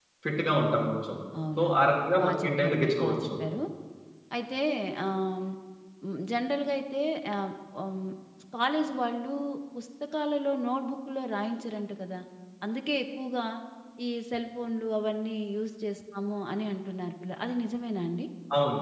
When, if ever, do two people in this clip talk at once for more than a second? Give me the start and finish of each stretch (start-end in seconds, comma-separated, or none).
1.6-3.3